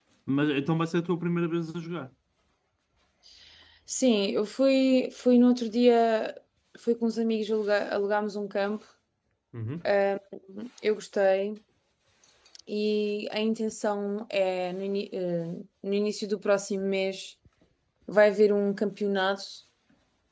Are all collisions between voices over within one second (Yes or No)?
Yes